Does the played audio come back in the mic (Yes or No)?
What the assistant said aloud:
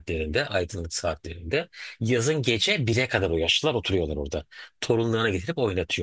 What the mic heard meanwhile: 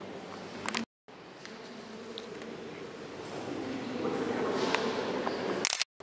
No